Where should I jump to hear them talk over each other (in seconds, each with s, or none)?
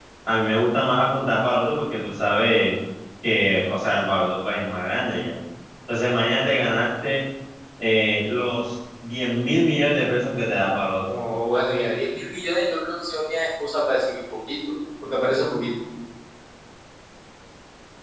none